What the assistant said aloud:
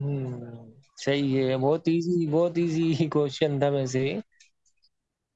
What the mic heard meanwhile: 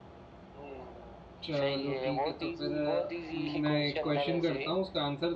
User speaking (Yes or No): Yes